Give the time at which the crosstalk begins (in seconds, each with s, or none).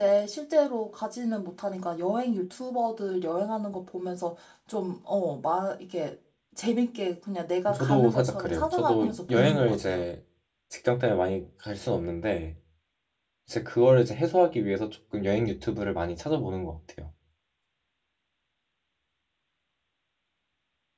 7.7 s